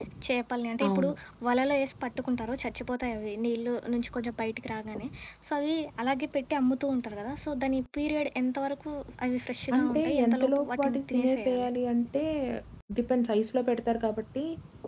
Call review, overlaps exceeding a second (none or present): present